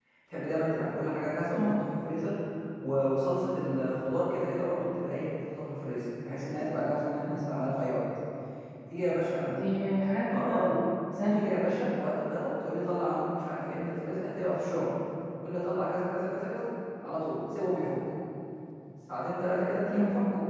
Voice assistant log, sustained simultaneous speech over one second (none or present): none